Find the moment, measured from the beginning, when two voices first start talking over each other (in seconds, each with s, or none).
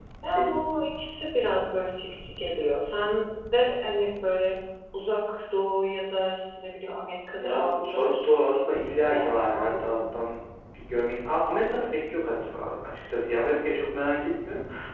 7.4 s